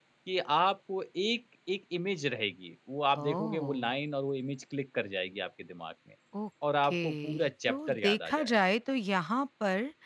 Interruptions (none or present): present